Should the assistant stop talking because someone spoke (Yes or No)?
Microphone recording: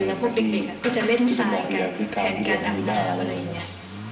No